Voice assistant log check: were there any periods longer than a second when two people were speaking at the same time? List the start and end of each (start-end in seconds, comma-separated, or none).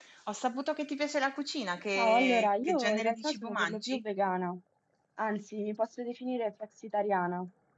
2.0-4.0